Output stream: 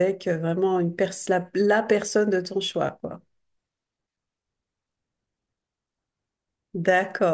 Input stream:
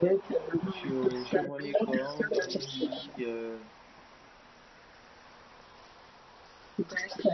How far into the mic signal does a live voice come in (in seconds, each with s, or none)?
0.7 s